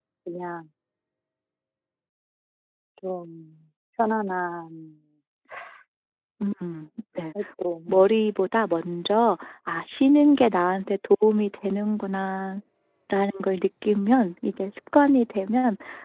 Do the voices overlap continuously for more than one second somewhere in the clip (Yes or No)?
No